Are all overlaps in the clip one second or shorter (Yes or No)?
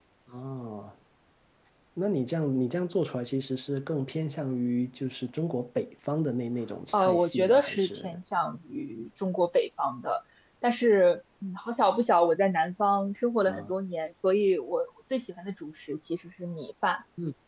No